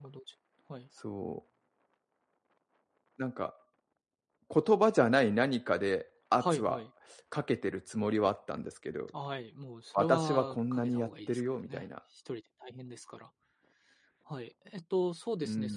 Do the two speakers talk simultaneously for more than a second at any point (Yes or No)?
Yes